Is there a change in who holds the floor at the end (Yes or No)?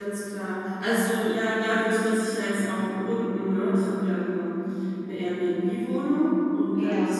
No